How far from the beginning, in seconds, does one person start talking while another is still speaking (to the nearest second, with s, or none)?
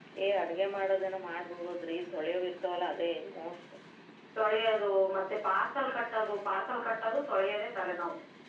none